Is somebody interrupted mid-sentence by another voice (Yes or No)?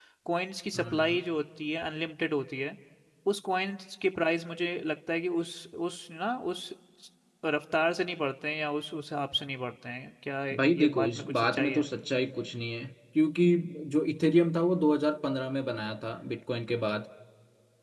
Yes